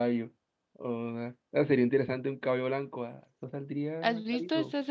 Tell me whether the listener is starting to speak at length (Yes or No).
Yes